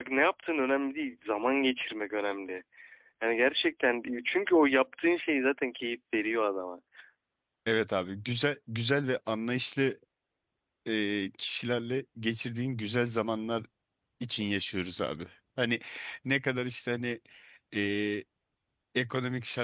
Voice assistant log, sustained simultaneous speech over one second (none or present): none